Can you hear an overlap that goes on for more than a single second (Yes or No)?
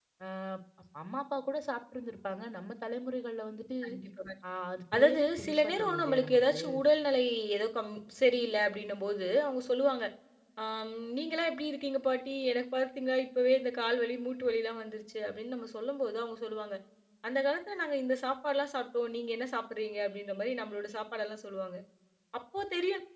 Yes